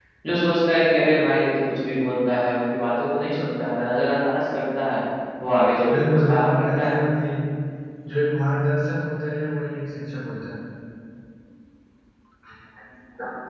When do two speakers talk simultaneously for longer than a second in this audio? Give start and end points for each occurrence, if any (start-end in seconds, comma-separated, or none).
5.8-7.0